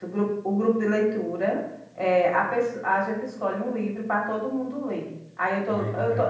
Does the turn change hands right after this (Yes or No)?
No